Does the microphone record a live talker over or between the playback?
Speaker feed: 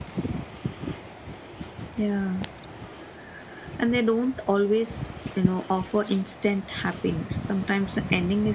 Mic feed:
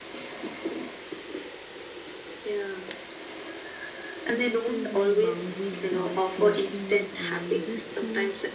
Yes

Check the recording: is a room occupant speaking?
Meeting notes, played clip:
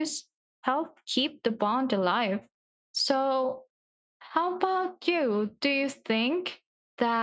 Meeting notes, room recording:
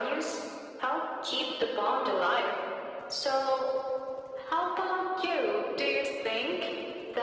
No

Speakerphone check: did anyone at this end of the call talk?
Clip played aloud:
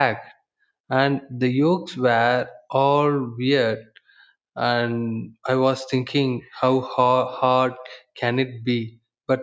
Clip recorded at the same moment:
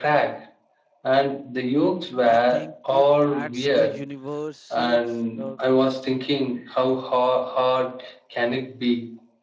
Yes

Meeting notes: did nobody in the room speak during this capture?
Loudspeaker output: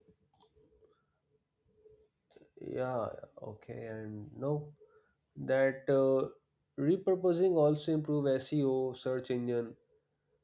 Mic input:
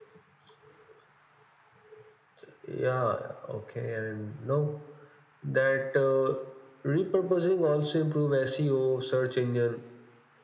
Yes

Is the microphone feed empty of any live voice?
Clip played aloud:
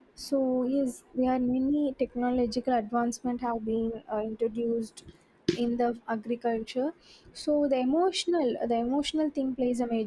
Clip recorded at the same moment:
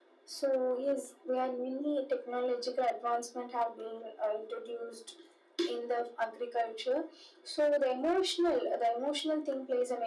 Yes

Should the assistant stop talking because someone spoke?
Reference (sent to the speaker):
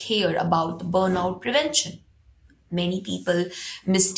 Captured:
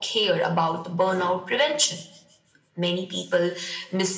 No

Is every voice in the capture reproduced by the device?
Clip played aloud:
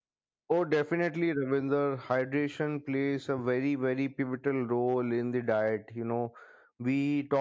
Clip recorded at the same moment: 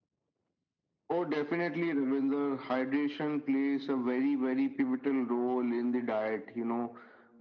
Yes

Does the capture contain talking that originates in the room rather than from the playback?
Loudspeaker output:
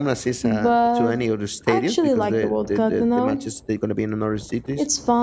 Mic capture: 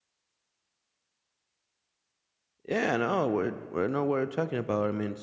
Yes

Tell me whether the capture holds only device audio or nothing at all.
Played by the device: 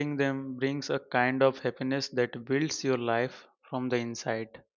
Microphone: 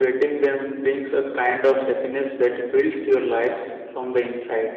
Yes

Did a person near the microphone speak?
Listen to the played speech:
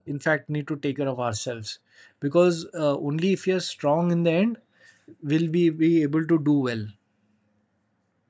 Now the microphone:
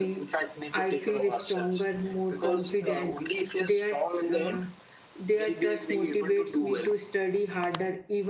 Yes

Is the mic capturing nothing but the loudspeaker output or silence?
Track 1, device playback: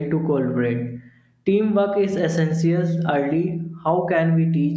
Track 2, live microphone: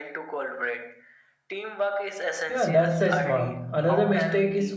No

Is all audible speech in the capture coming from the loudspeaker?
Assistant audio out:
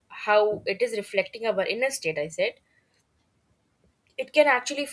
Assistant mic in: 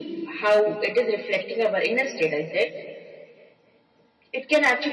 Yes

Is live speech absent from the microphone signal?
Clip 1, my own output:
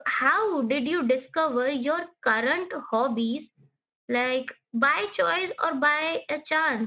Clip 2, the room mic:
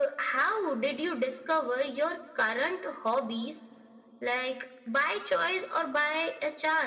Yes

